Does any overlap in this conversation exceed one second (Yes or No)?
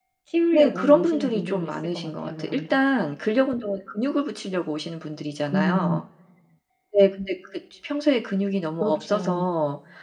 Yes